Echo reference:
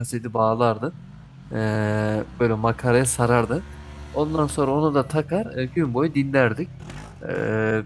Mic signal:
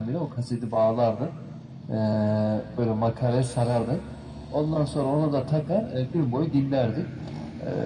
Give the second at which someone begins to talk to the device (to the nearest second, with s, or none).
none